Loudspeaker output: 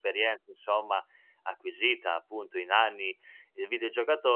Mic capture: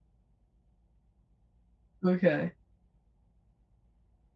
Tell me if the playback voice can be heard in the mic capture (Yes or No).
No